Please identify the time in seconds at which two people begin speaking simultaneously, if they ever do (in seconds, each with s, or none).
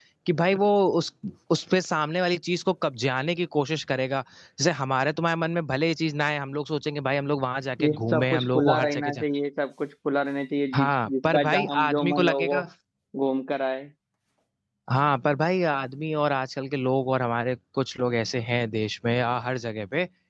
7.8 s